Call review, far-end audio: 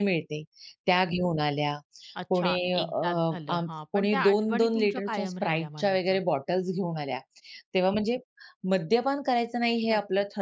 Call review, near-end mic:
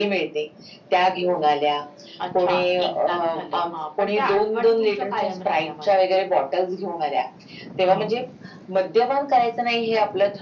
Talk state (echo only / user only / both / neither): both